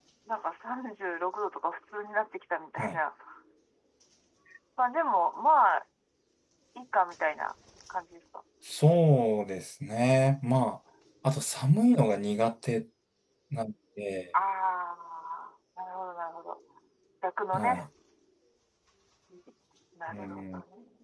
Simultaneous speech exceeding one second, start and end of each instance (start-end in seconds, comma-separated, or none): none